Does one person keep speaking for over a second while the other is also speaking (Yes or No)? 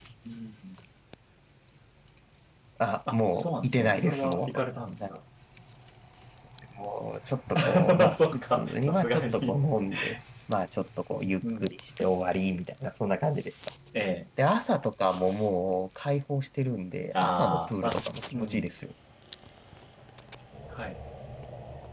Yes